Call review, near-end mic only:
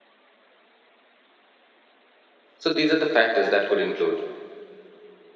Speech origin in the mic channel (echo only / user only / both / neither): user only